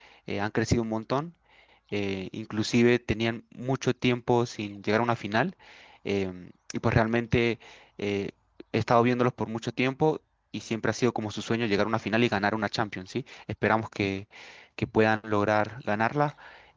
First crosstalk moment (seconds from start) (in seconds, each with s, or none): none